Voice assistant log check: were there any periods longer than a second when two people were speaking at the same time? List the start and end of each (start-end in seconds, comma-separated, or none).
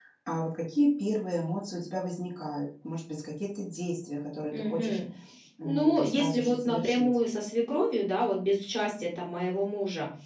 5.6-7.1